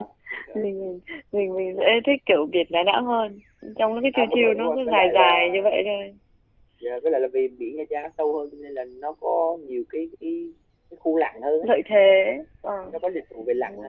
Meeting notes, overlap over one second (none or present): present